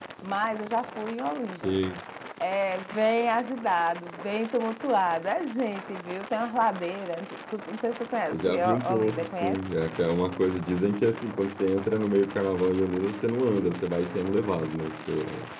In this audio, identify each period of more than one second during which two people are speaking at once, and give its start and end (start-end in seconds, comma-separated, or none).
8.3-9.6